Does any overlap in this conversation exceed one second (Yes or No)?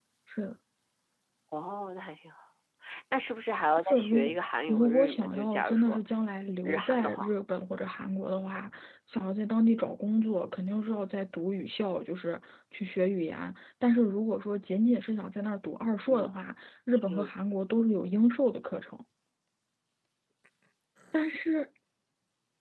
Yes